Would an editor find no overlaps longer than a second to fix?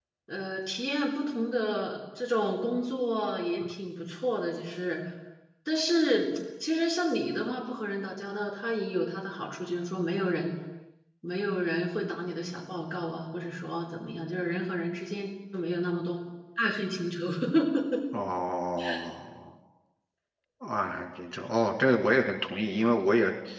Yes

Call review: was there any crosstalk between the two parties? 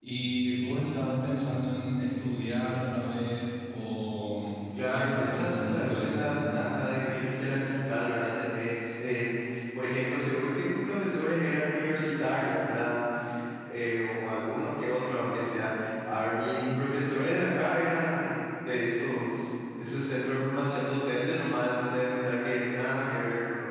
Yes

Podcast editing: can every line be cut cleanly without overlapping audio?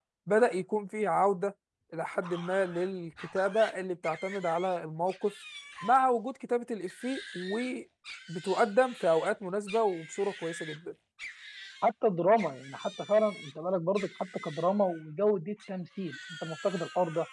Yes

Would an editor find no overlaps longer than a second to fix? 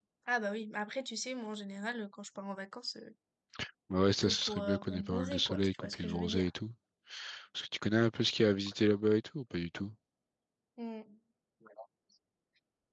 No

